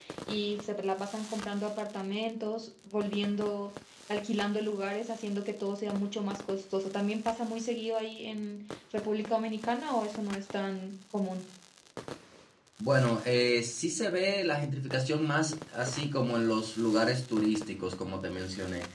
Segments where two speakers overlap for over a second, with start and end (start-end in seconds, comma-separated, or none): none